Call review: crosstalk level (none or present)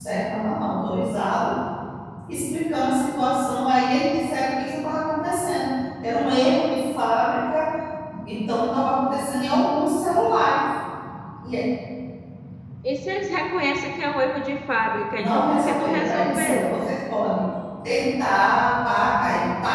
present